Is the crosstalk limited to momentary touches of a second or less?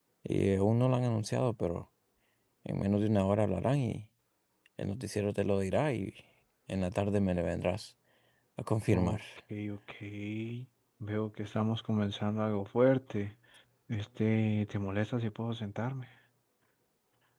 Yes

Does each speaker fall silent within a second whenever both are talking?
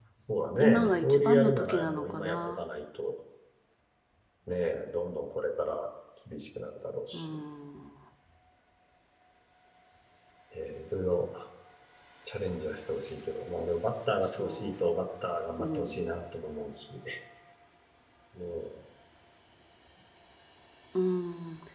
No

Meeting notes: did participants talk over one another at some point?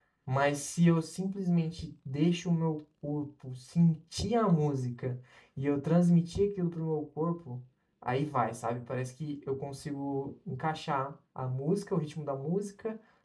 No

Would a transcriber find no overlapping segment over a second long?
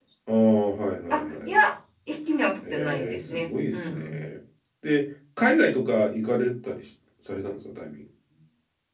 No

